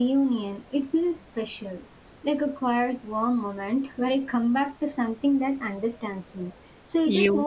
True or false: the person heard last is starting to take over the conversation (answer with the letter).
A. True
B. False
B